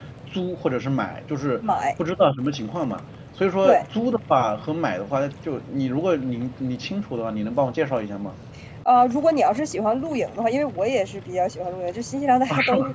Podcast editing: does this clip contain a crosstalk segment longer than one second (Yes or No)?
No